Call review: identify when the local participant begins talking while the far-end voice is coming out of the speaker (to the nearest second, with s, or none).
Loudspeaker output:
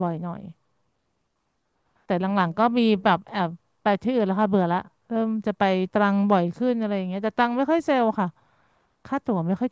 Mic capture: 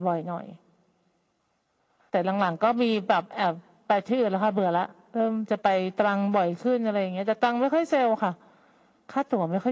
none